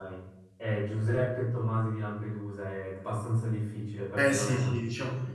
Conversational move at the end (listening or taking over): taking over